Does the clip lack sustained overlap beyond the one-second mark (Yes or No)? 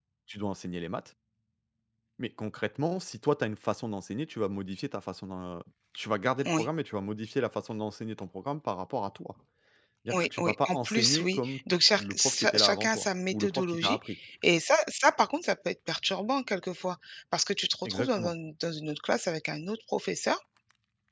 No